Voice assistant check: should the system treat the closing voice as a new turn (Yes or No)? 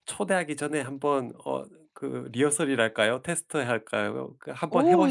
Yes